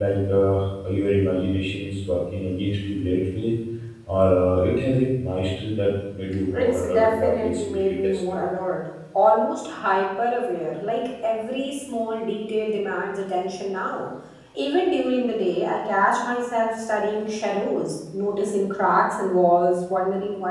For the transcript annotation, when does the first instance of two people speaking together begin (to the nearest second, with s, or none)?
6 s